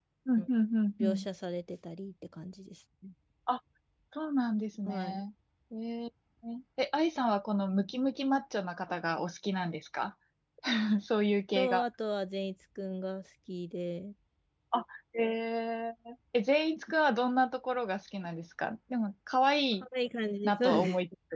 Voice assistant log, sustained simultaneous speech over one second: none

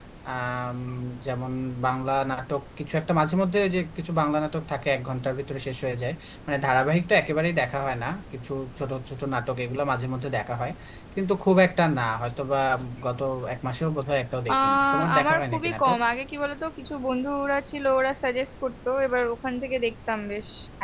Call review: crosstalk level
present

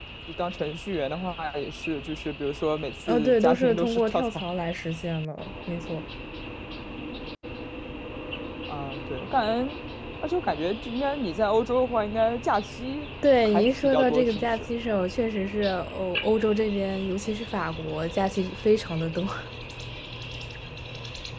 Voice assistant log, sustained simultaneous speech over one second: present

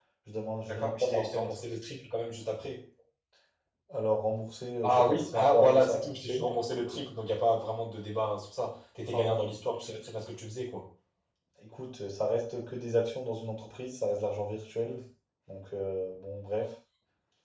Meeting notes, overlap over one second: present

